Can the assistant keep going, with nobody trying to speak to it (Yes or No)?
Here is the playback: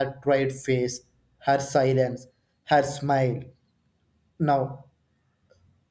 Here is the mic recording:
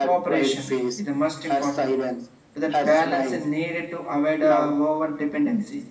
No